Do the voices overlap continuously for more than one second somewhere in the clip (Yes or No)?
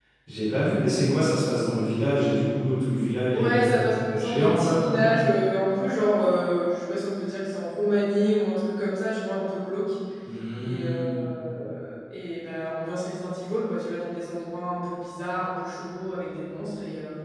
Yes